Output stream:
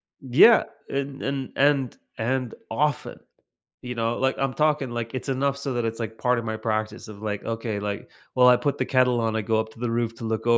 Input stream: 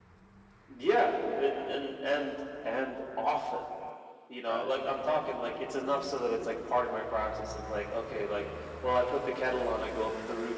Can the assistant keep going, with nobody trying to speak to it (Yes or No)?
No